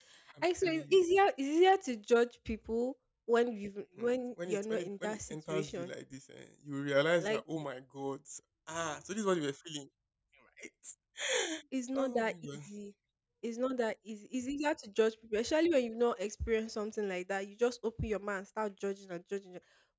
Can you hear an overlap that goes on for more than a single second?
Yes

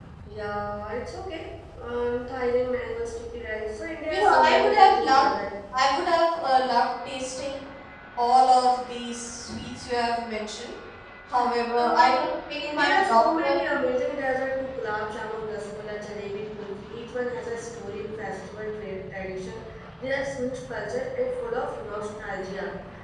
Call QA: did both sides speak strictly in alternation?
No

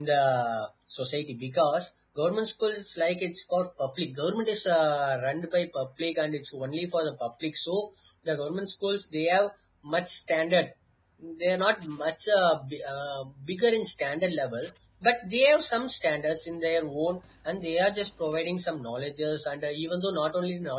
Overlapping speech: No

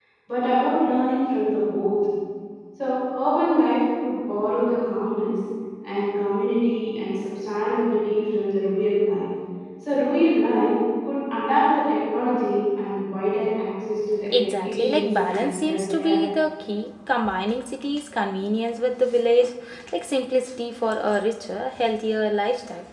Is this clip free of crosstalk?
No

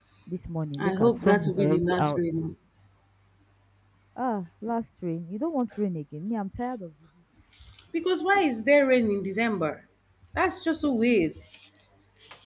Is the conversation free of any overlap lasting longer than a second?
No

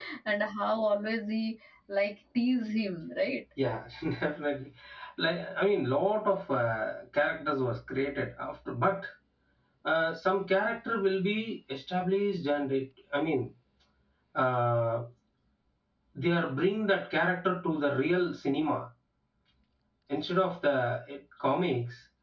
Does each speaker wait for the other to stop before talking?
Yes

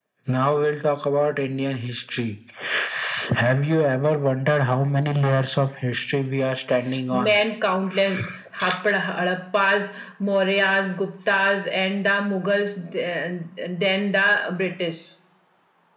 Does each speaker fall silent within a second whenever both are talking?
Yes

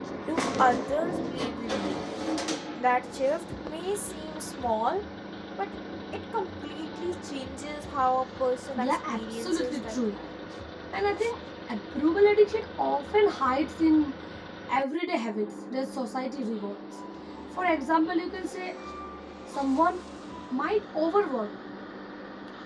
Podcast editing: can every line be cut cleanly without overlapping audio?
No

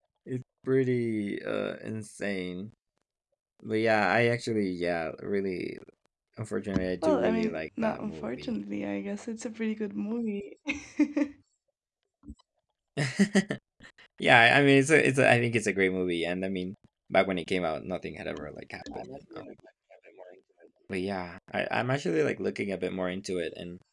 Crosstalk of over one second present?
Yes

